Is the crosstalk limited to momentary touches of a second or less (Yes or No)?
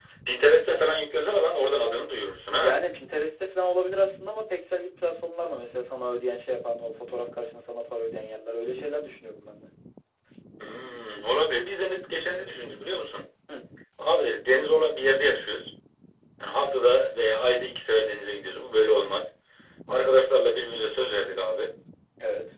Yes